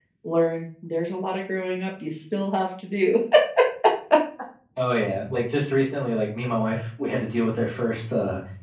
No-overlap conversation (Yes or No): Yes